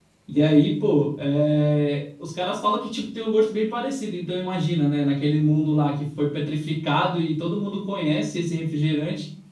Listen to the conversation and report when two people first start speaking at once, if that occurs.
none

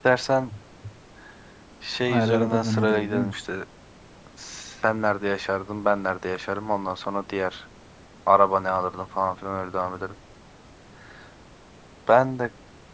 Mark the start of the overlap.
2.1 s

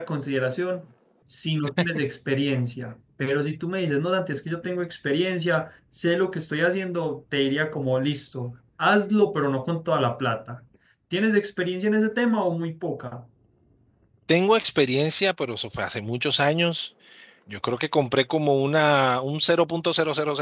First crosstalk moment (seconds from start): none

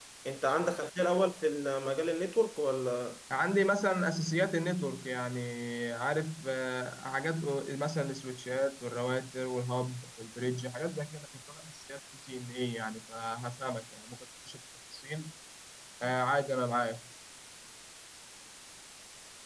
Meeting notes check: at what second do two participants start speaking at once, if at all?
none

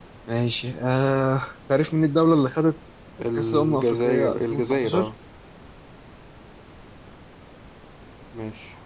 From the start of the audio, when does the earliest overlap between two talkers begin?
3.2 s

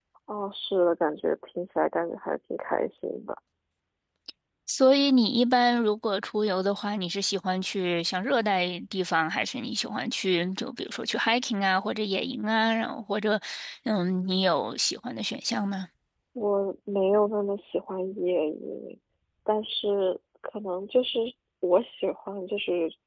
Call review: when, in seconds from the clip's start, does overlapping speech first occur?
none

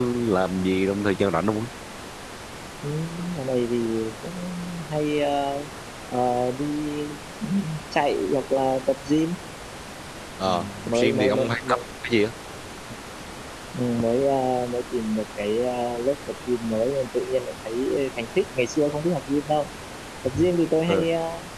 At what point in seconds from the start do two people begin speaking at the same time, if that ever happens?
10.5 s

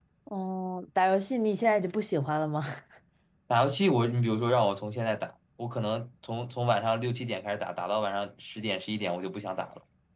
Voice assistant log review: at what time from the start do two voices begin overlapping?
none

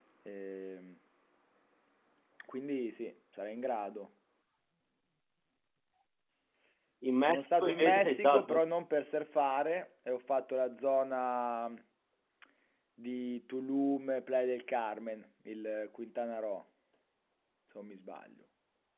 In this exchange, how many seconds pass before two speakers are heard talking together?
7.2 s

